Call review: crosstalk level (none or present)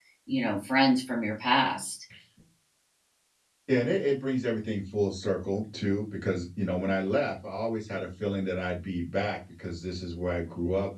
none